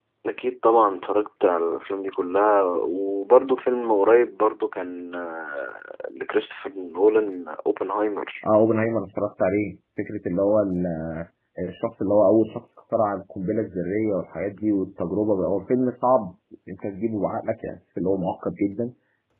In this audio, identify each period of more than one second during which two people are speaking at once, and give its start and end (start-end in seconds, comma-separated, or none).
none